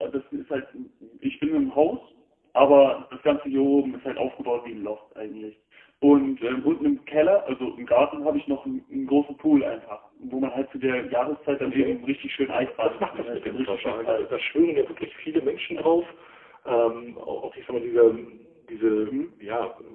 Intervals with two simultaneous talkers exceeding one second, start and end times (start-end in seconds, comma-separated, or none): 12.5-14.2